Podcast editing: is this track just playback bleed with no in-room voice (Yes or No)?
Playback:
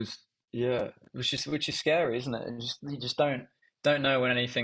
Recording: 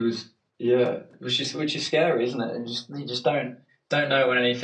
Yes